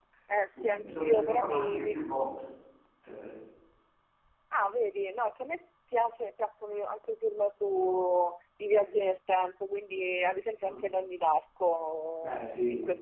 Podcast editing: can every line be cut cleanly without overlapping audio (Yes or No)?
No